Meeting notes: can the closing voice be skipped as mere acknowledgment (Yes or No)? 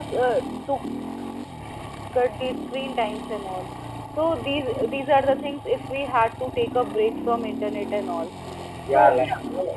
No